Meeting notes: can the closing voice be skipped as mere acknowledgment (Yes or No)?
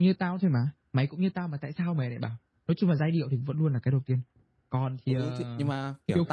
No